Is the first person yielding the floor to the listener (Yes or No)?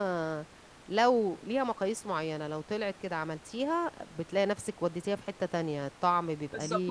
Yes